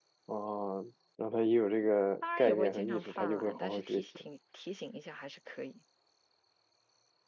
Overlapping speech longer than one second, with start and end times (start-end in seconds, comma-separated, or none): 2.4-4.2